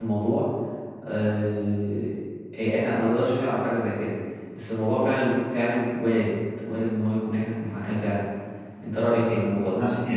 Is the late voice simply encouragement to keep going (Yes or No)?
No